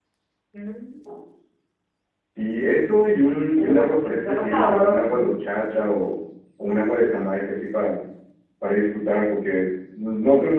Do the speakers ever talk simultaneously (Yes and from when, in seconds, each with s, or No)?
Yes, from 3.6 s